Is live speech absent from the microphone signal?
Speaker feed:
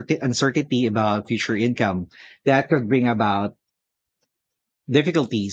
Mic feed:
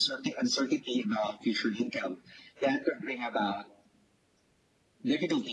Yes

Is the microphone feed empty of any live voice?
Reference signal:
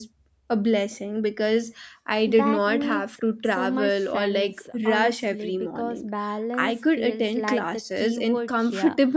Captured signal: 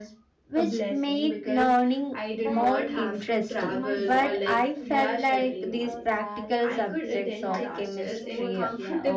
No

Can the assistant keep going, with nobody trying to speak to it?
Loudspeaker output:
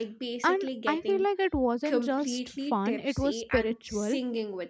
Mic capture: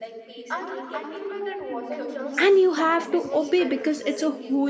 No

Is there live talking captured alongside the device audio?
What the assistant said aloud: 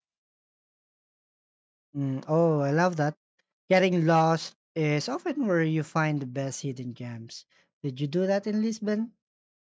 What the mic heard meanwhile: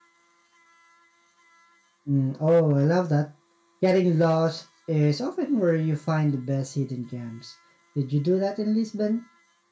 No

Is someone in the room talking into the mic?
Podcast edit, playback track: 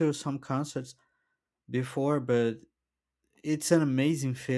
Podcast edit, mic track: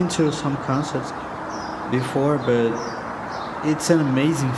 No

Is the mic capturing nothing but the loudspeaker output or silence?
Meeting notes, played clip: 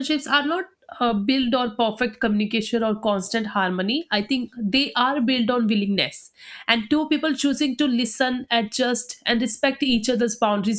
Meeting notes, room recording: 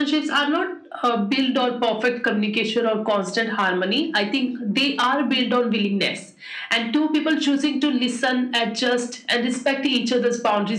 Yes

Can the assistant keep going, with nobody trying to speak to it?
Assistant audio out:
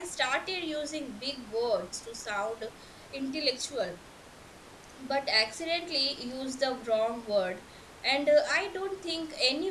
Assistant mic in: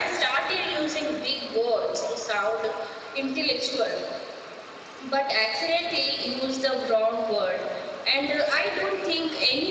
Yes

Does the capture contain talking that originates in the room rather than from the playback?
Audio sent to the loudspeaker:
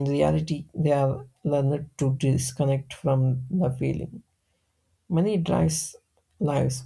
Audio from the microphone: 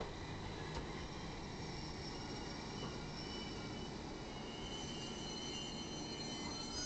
No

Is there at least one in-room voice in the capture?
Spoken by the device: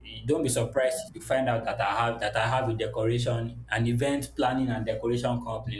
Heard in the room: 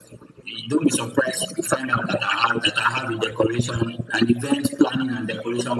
No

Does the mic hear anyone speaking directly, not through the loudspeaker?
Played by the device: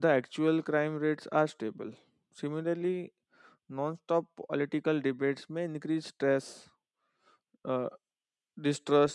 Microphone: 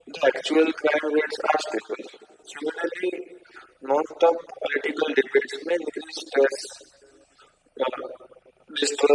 No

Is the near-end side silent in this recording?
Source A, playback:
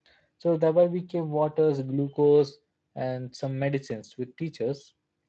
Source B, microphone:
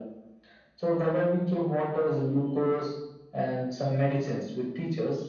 Yes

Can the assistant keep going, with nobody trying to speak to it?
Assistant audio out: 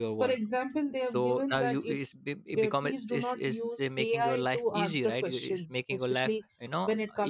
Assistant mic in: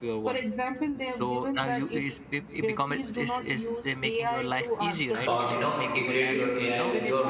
No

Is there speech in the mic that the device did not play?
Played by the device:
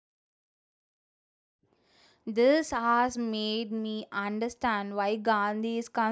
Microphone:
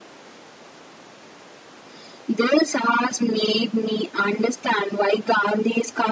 No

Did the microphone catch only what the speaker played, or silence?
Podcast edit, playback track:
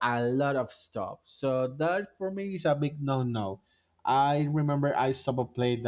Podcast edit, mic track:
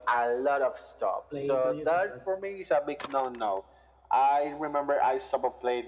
No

